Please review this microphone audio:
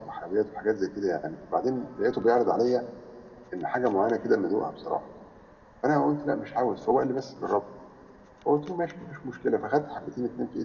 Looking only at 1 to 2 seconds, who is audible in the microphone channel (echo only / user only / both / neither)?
echo only